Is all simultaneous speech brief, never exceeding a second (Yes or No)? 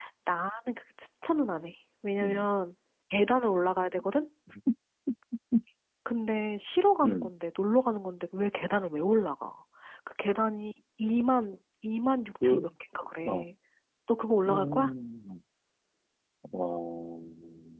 Yes